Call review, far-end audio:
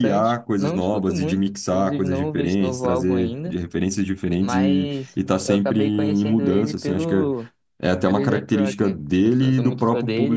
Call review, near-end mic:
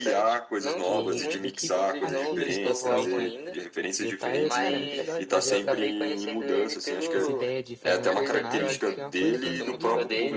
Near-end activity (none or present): present